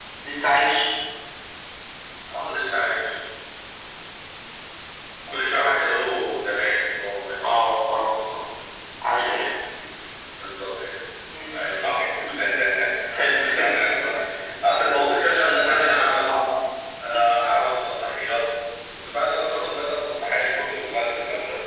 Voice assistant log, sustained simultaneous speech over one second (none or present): present